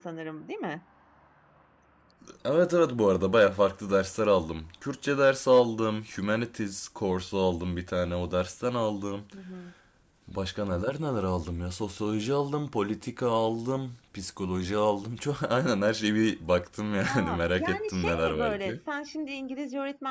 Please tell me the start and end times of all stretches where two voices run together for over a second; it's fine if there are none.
16.9-18.8

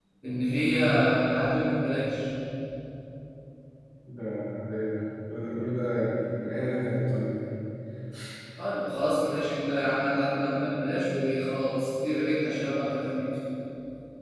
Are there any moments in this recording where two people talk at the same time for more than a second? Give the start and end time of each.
none

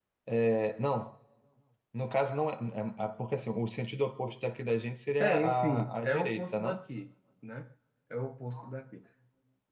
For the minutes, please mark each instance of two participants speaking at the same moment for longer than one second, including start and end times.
5.2-6.8

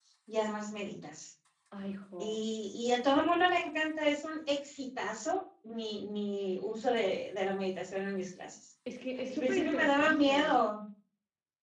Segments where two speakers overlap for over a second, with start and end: 9.3-10.6

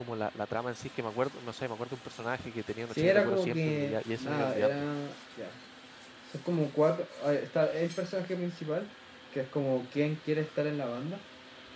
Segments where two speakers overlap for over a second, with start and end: 2.9-4.8

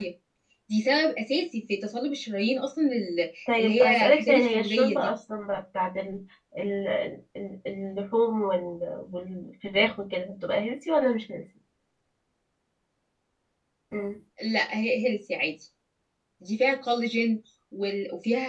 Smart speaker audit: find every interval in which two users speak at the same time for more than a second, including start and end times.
3.6-5.1

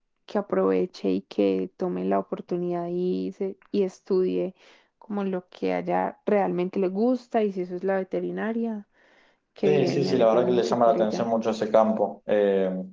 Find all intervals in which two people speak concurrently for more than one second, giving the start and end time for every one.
9.6-11.3

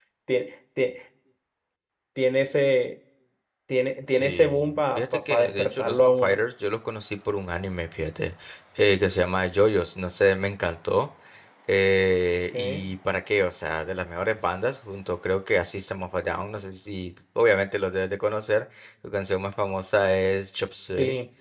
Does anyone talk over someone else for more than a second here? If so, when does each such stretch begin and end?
4.1-6.4

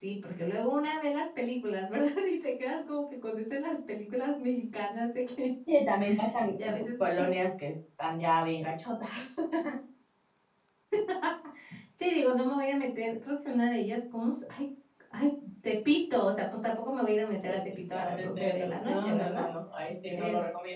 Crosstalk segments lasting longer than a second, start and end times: 17.4-19.4

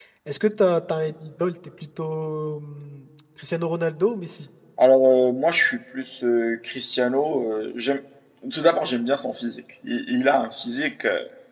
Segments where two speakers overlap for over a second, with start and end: none

